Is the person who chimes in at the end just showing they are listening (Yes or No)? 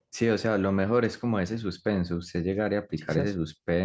Yes